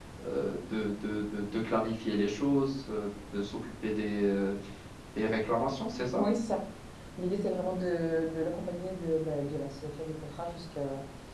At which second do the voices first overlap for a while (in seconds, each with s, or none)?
none